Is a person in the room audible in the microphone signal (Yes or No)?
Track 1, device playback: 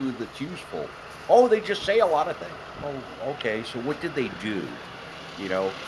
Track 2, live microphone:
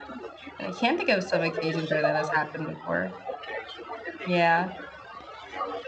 Yes